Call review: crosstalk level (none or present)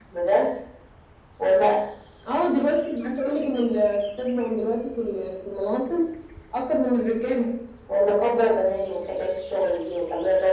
none